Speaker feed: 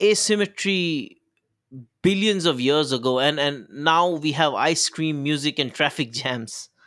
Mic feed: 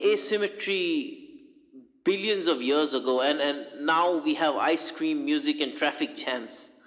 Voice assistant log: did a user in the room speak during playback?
No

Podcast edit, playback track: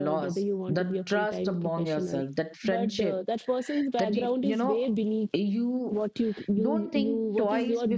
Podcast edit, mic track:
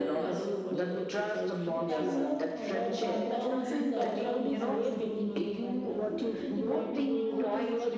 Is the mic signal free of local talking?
No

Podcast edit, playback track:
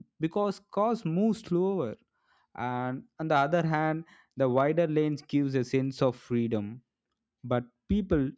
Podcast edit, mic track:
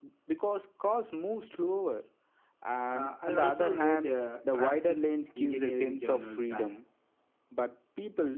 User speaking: Yes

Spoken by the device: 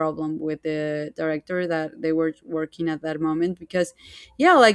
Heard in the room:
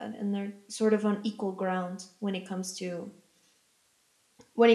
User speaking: Yes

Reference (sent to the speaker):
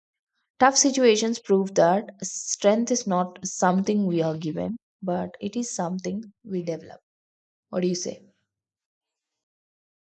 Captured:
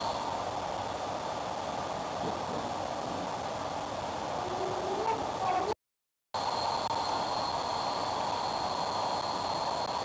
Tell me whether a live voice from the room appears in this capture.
No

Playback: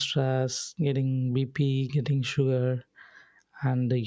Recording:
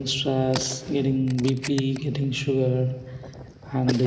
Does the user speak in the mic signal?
No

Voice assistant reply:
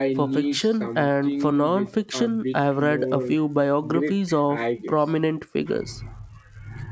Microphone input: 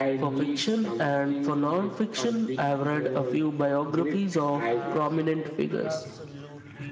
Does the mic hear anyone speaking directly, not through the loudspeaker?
Yes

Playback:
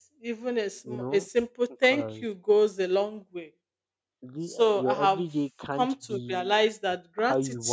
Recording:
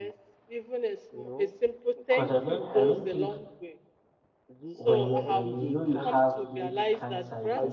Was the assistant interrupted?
Yes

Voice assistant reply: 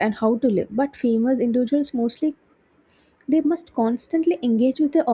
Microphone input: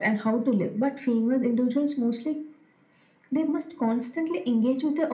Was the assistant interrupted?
No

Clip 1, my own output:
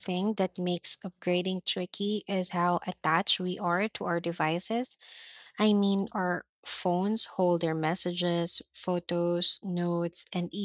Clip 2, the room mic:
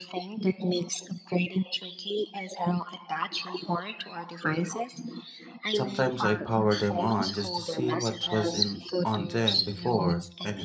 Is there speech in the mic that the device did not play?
Yes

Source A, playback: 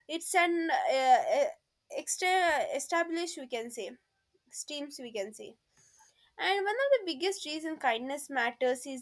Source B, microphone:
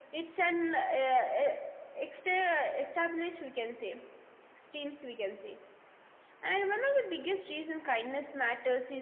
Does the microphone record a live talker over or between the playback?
No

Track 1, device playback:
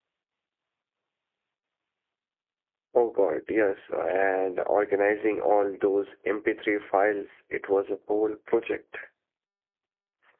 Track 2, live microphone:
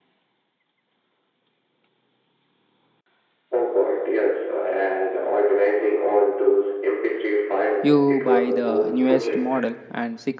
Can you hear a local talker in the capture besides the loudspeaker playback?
Yes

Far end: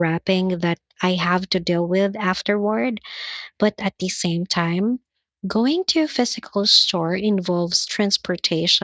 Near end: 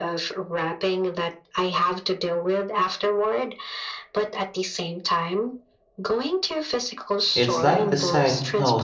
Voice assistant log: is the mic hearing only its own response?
No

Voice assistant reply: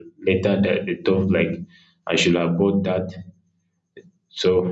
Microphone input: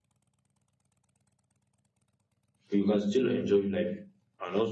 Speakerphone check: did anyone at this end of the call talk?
Yes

